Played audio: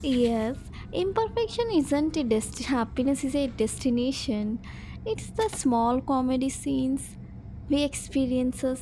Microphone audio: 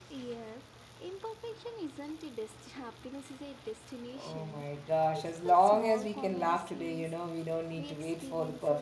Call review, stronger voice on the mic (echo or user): user